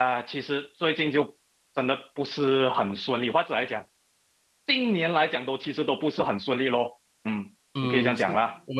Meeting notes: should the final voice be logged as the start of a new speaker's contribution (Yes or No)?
Yes